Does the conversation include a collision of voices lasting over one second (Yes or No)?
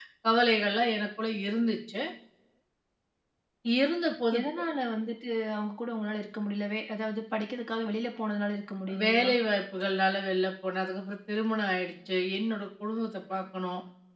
No